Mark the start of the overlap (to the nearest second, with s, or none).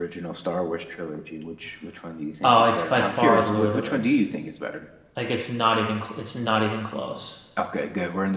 2 s